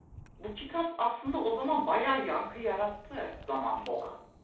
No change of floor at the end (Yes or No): No